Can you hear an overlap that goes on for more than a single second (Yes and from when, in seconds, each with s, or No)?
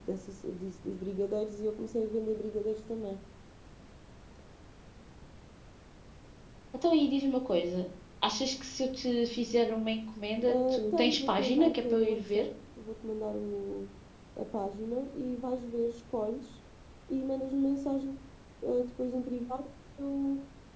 Yes, from 10.5 s